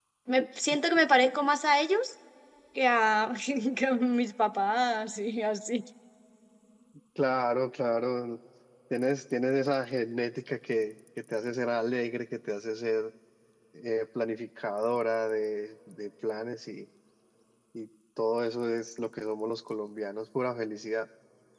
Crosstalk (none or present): none